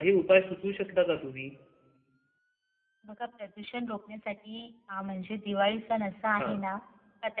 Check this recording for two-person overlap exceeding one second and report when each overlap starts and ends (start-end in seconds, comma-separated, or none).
none